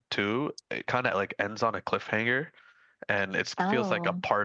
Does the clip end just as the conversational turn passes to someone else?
No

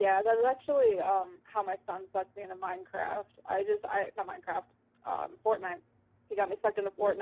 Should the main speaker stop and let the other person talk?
No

